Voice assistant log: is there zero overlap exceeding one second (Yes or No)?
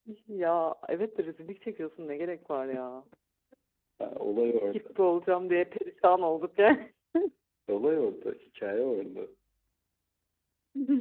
Yes